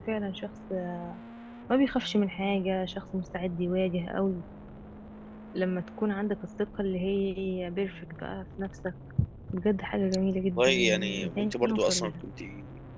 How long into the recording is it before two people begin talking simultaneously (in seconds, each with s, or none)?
10.6 s